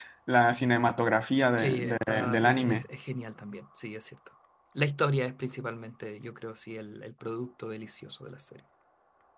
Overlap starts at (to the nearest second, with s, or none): 2 s